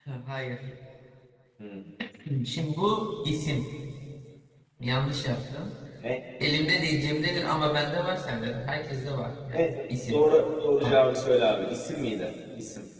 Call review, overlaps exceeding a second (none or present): none